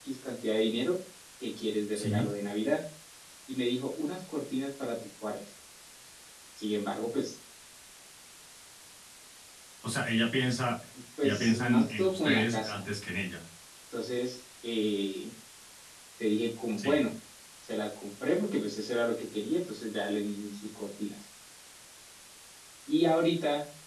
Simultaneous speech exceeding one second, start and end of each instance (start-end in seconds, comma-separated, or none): 11.2-12.8